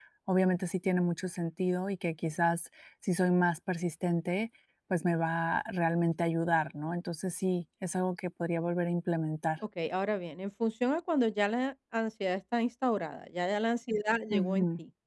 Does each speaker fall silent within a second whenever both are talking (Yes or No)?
Yes